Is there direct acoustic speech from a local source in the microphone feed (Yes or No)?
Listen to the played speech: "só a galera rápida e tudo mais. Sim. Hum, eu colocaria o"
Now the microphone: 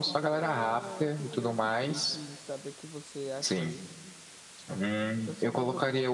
Yes